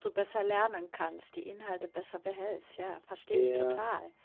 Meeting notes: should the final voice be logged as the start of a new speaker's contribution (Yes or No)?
Yes